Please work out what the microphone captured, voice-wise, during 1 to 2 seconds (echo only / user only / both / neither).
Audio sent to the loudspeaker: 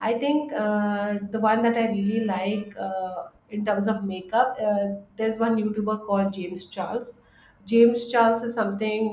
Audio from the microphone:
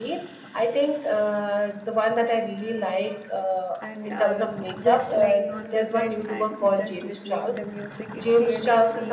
echo only